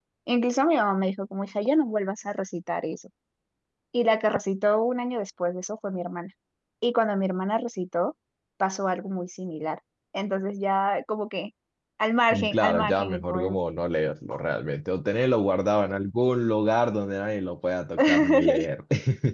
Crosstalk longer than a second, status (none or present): present